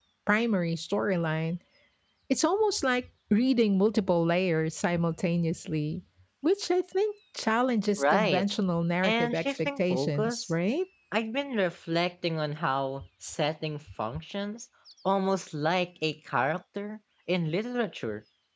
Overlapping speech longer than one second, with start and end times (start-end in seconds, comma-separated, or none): 9.0-10.5